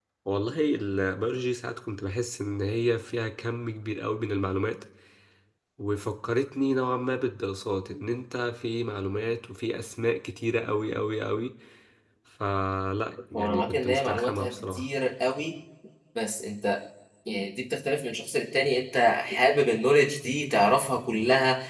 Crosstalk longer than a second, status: present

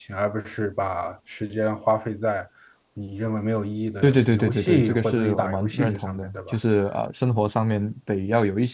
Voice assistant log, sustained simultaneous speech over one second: present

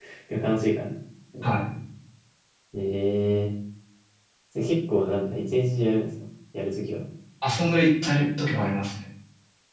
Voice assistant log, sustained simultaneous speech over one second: none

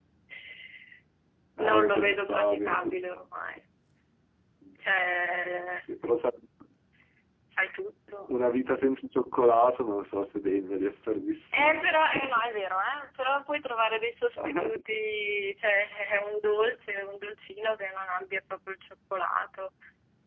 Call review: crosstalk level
present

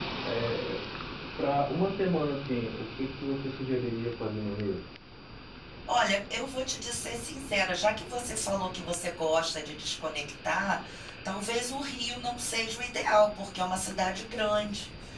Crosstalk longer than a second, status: none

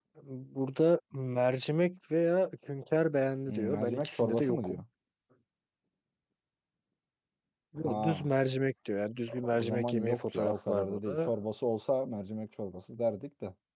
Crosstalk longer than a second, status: present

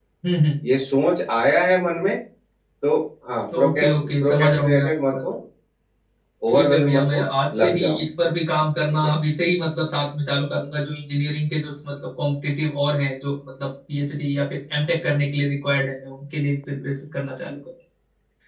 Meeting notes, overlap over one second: present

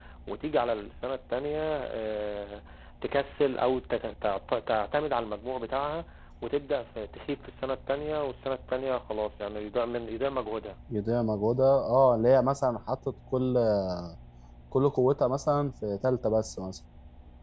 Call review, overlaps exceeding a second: none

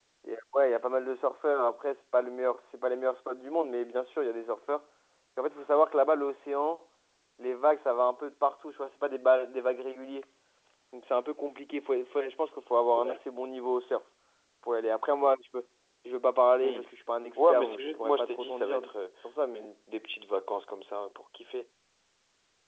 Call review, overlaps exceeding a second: present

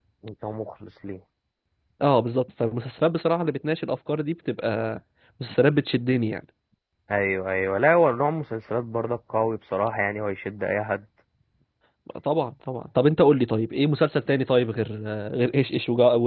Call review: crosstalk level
none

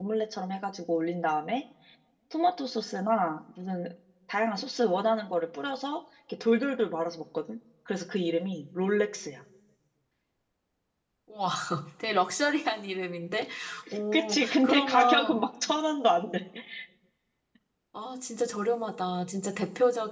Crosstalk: present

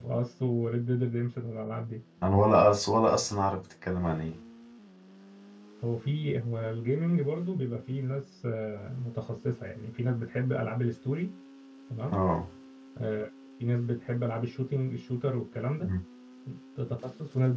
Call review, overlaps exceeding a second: none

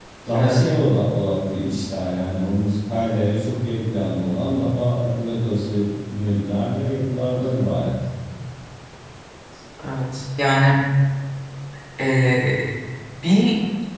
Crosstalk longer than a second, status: none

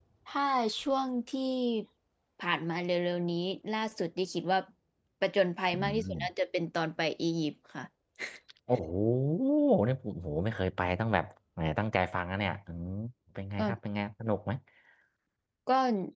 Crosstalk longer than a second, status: none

